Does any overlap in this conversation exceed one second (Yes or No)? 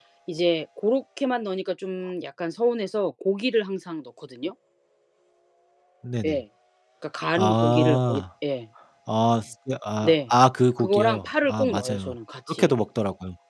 Yes